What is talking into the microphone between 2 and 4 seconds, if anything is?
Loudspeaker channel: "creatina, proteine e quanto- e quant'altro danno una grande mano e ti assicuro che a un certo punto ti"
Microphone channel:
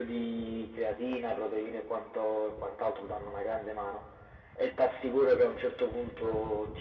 echo only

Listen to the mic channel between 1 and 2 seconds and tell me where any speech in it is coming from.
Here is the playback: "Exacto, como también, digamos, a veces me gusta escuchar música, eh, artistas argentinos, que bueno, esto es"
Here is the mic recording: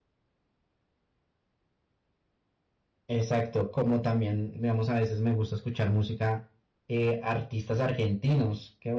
neither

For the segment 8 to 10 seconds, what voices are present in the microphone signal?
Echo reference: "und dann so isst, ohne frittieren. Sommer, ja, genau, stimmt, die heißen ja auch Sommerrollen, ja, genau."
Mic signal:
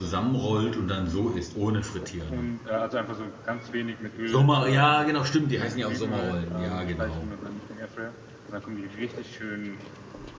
user only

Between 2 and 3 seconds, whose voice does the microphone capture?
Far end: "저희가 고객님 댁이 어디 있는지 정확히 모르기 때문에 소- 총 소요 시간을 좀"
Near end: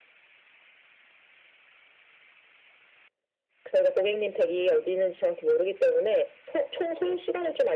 neither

